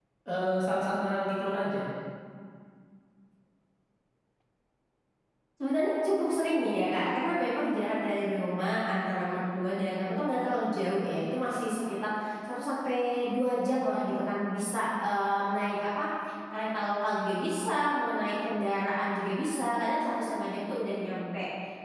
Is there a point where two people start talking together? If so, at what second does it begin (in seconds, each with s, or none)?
none